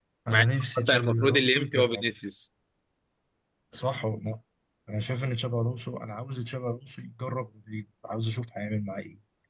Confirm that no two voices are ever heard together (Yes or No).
No